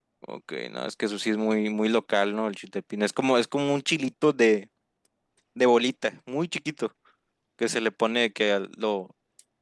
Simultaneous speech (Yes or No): No